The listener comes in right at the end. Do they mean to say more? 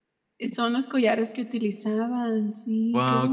Yes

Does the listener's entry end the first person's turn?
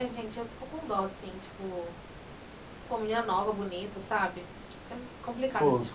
No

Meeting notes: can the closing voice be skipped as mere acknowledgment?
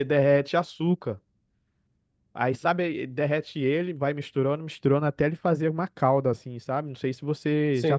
No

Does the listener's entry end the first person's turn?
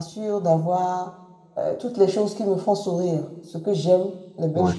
No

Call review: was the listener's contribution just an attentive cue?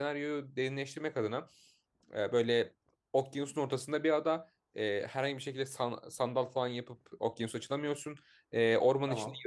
Yes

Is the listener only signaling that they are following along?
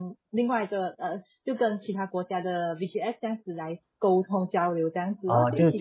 No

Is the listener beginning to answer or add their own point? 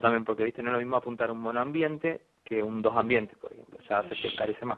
Yes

